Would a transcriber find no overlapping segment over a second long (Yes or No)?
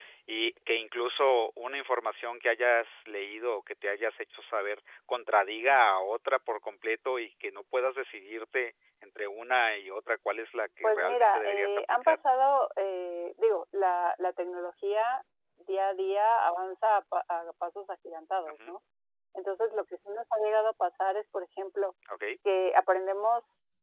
No